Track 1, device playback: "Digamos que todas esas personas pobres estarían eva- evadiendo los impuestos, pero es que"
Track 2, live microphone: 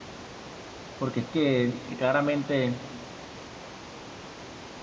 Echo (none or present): none